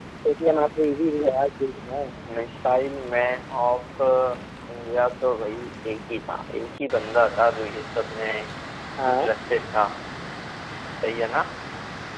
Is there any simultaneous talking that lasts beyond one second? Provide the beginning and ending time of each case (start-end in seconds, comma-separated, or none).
none